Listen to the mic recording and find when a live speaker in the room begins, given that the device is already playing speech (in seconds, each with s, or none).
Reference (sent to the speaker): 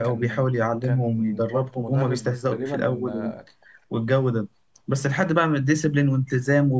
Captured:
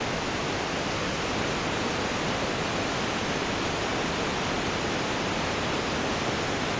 none